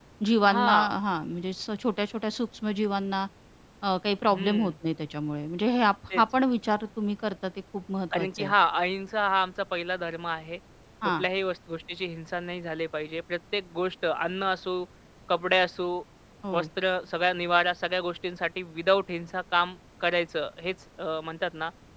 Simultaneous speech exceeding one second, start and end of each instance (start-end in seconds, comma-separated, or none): none